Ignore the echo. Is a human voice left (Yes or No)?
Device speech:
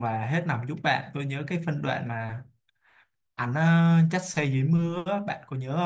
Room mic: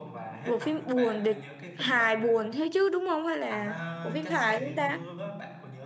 Yes